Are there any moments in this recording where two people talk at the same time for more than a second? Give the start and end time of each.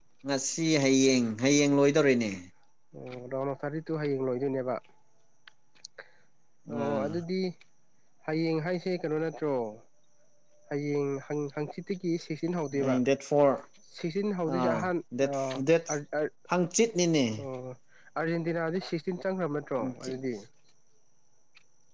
none

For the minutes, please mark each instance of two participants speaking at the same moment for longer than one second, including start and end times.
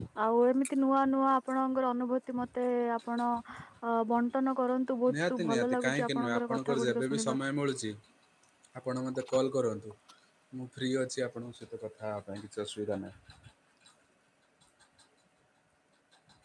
5.1-7.4

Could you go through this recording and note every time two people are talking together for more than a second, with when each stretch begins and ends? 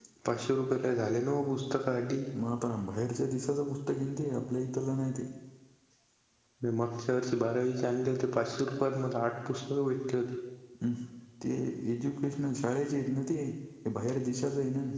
none

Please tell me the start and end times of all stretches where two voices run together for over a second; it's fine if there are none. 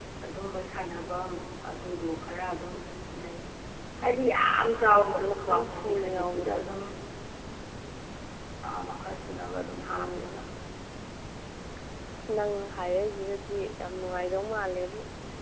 4.9-6.6

